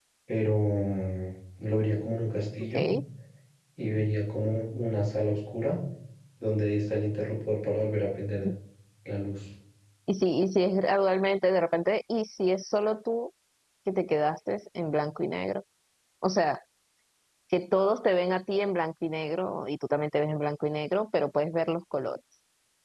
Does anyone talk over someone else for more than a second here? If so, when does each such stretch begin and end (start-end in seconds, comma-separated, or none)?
none